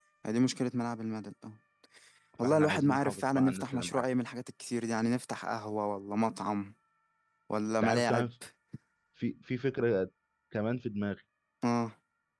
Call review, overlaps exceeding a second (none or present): present